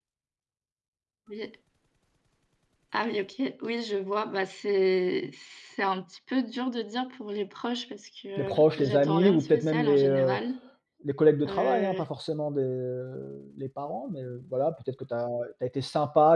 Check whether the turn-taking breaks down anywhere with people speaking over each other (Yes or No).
Yes